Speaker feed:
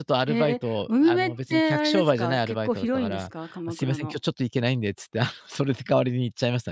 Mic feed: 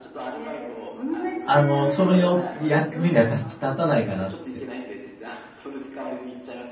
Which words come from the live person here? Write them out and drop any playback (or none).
あの、そのよ役目にはた立たないかなって。